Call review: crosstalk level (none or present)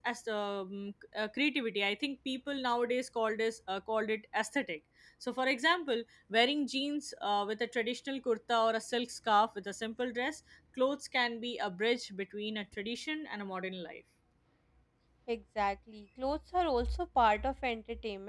none